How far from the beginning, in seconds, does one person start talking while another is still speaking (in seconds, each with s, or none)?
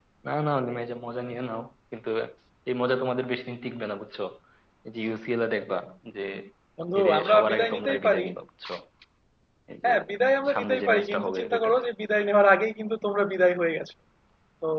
7.0 s